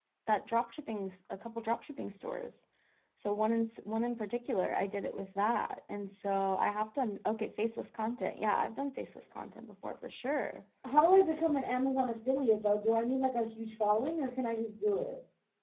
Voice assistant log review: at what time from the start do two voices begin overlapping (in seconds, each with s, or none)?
none